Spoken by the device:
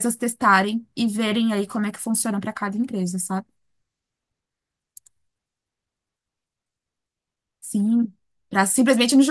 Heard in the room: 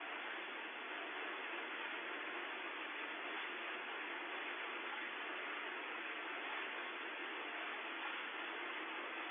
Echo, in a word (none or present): none